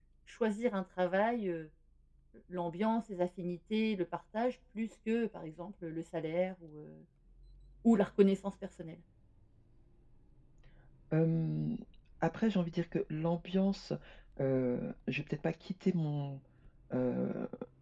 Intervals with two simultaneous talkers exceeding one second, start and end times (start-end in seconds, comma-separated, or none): none